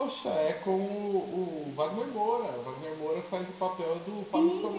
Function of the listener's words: taking over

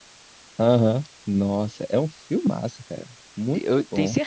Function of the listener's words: taking over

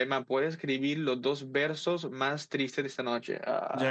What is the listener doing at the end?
taking over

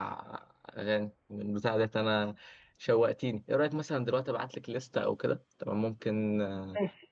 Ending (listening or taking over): taking over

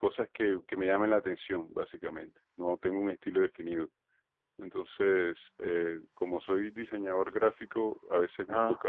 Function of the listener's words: listening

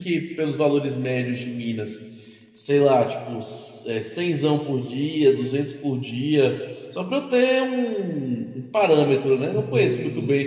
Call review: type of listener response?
taking over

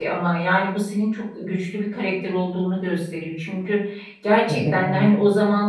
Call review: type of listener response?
listening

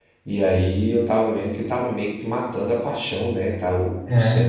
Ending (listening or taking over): listening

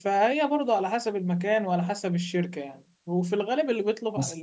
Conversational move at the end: listening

